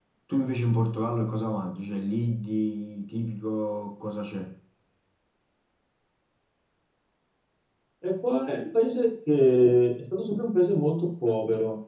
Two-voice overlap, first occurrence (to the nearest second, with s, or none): none